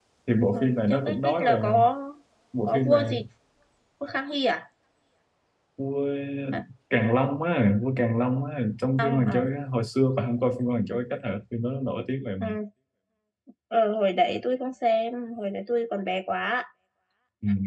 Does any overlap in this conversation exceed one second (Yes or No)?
Yes